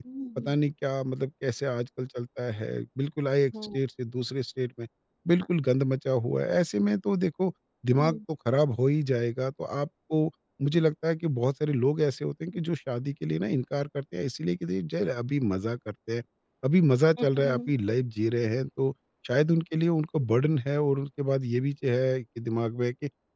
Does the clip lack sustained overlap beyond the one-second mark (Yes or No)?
Yes